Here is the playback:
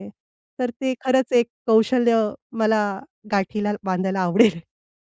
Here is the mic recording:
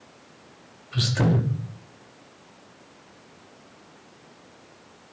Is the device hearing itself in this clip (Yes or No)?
No